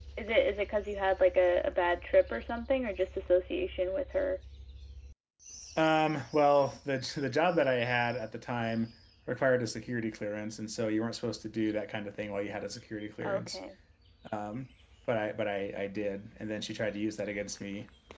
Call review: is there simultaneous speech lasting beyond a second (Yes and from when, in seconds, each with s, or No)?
No